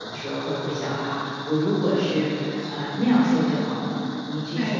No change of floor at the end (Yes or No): Yes